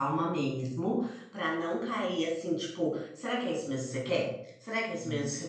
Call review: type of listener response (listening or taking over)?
listening